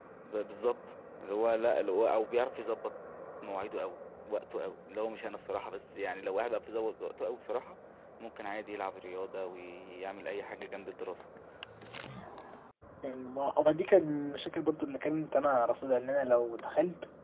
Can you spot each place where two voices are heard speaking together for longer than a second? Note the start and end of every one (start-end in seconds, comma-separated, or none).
none